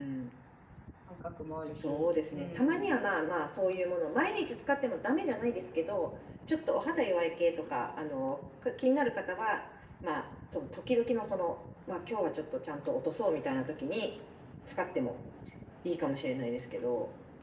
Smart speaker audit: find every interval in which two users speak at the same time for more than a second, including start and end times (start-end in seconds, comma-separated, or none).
1.6-3.0